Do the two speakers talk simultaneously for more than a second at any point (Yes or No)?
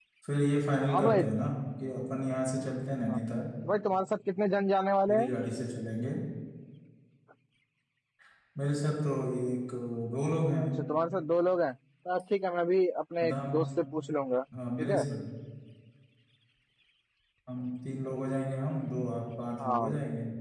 No